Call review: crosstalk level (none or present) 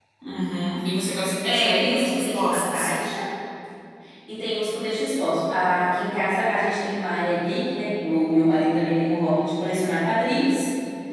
present